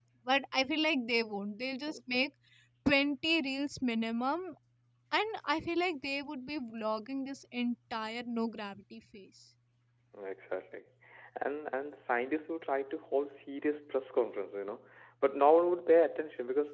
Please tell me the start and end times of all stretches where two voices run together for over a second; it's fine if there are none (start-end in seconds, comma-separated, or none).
none